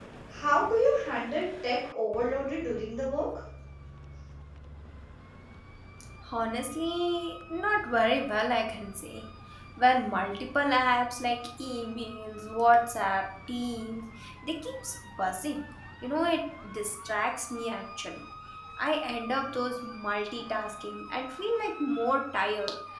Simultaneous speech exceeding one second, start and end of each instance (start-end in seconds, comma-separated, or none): none